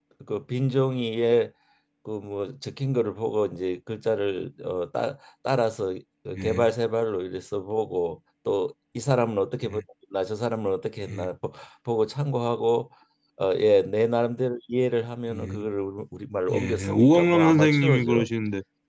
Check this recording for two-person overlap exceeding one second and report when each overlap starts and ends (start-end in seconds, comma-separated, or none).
16.5-18.3